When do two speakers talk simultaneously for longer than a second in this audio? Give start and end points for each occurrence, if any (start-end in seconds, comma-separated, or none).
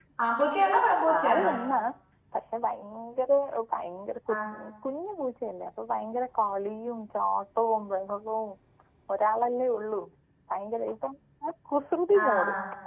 none